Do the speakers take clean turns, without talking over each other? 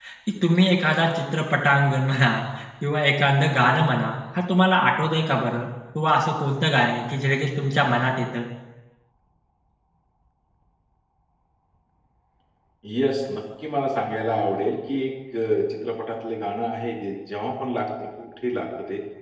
Yes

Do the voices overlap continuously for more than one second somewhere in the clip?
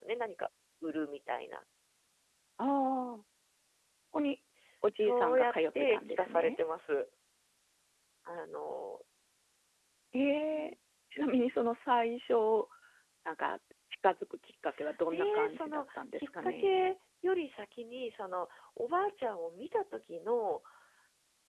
Yes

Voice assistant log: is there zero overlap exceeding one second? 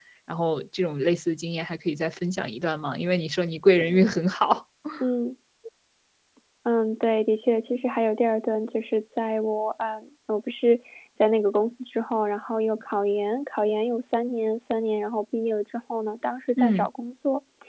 Yes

